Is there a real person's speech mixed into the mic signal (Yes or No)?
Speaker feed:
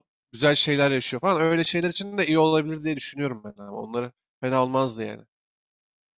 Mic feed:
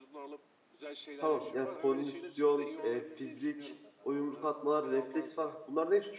Yes